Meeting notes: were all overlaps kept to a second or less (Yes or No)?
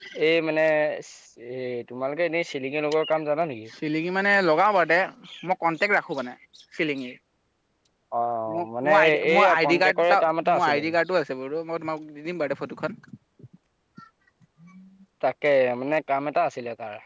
No